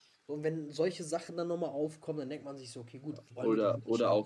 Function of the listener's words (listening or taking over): taking over